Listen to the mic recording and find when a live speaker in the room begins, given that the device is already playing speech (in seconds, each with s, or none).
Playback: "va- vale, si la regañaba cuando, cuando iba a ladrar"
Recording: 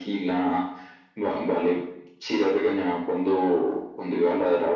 none